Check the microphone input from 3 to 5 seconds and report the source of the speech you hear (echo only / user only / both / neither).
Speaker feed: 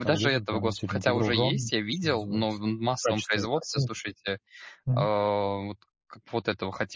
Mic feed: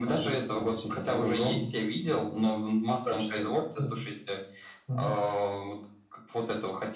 echo only